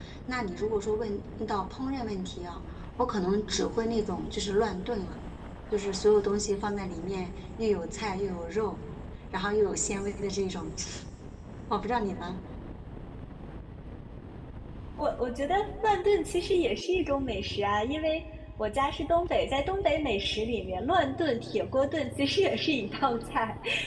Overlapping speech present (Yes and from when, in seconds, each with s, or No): No